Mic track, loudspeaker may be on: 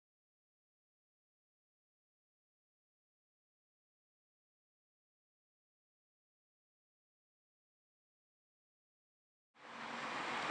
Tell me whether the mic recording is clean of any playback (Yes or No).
Yes